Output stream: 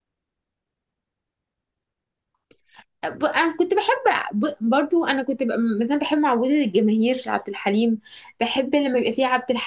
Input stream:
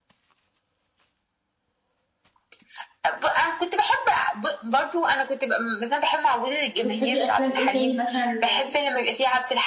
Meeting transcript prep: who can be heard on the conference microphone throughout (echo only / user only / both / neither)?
both